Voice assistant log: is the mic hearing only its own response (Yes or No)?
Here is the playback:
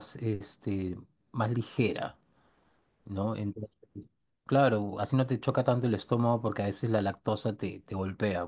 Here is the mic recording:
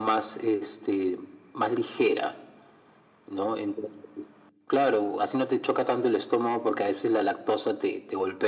Yes